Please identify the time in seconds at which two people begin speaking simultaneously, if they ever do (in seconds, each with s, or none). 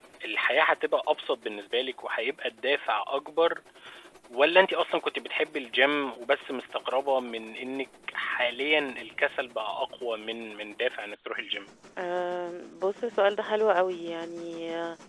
none